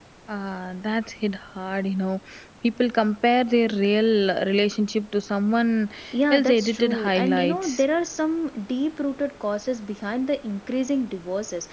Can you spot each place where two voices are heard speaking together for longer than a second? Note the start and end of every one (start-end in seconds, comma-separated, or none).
6.3-7.8